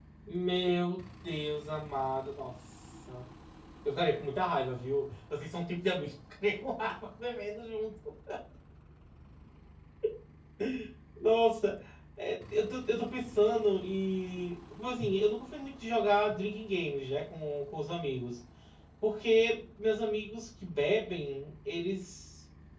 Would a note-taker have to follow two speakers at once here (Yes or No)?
No